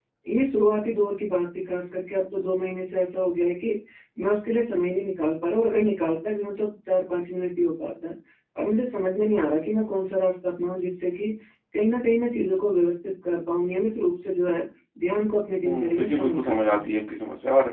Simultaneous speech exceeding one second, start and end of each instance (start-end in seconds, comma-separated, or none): 15.7-16.9